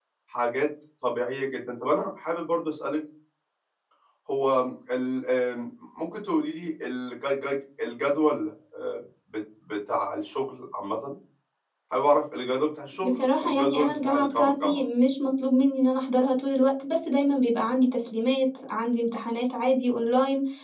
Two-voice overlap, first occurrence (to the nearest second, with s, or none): 13 s